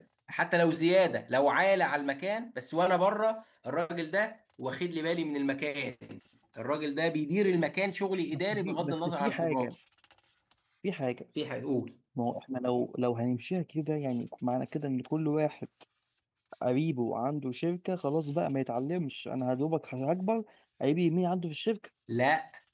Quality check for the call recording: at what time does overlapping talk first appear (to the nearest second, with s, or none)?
8 s